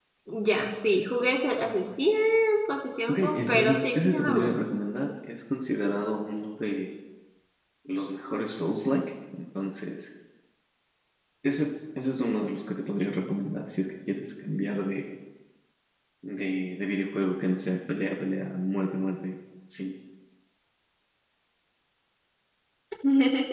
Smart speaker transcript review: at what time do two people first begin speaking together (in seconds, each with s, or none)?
3.1 s